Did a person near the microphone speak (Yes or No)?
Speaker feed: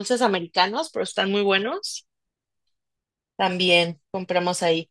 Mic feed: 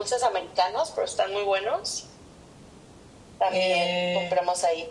Yes